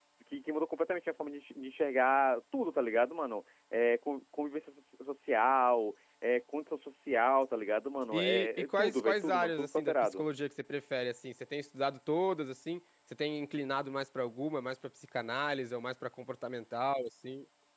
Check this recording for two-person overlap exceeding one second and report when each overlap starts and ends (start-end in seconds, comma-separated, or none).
8.2-10.2